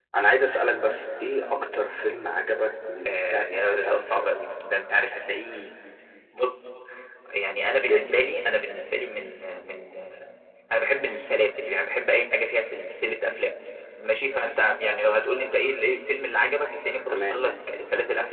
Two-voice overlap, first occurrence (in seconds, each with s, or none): 3.0 s